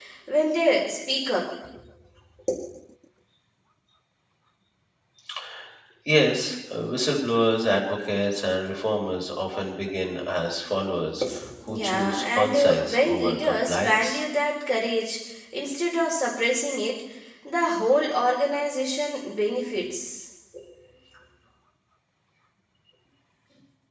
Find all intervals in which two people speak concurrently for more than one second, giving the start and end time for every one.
11.7-14.2

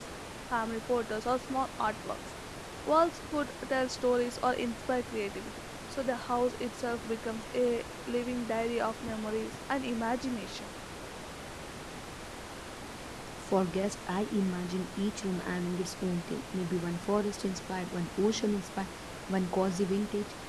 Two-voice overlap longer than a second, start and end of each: none

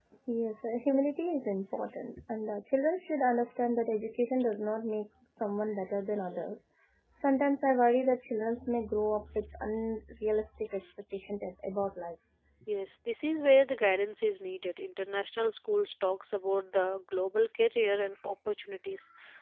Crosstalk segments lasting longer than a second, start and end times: none

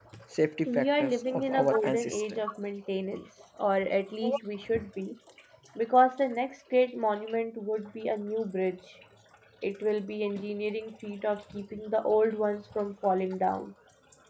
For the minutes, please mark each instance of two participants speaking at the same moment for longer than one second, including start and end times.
0.7-2.4

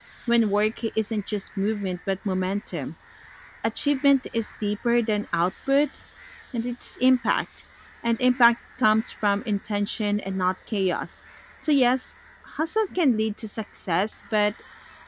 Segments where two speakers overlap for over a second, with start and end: none

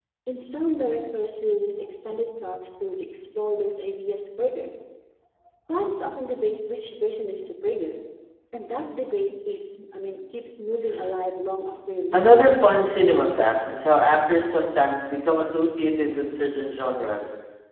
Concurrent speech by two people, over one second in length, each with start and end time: none

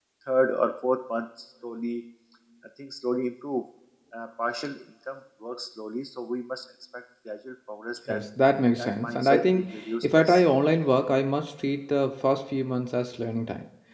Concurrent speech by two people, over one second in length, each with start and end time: 8.8-10.3

